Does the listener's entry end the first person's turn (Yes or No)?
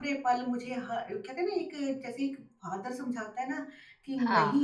No